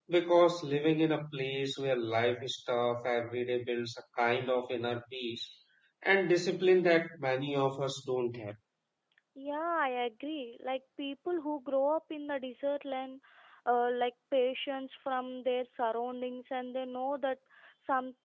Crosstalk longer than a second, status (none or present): none